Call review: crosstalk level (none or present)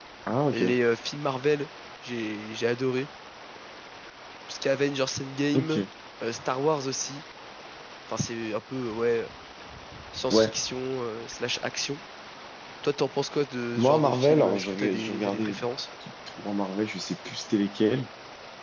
present